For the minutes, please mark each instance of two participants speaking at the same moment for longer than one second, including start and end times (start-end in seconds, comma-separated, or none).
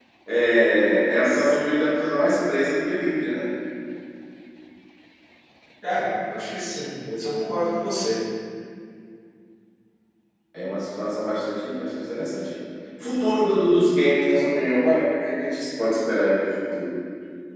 none